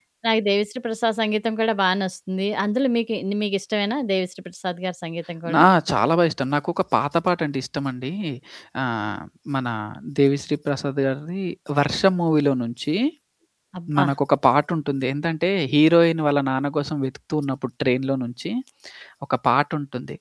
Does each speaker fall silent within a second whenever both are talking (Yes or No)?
Yes